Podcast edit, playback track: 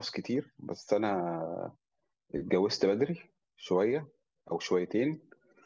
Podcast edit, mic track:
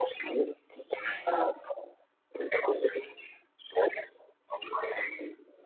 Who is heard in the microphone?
echo only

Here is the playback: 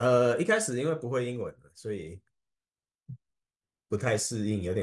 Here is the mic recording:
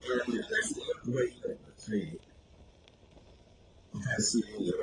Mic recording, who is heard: echo only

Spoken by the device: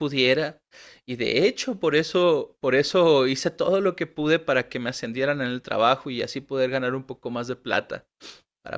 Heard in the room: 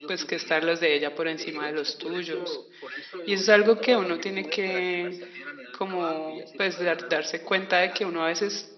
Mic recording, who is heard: both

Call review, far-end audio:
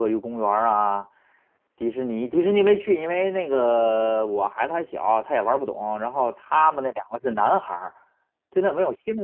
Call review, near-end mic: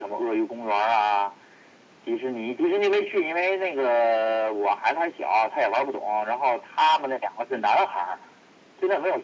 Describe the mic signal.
echo only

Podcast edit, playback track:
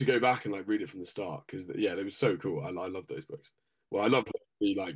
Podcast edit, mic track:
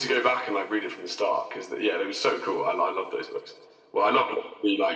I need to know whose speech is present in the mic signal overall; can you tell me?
echo only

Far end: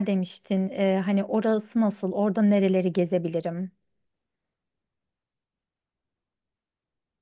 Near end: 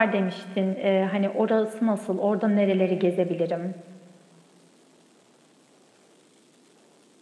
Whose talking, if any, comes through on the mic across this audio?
echo only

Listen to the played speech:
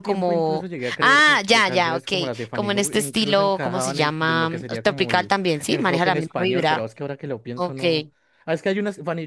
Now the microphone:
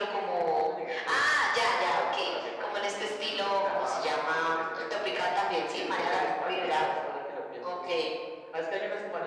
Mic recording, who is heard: echo only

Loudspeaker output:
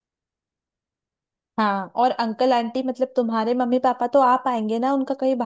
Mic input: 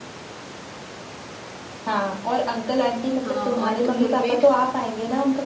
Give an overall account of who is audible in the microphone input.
both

